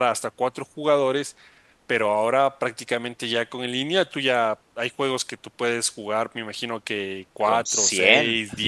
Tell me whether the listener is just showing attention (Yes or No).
Yes